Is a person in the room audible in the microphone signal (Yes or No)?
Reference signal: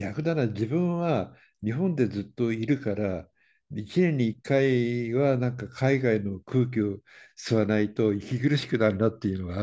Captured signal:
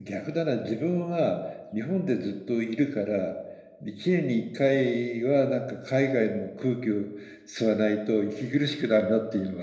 No